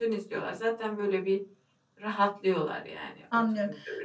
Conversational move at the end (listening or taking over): taking over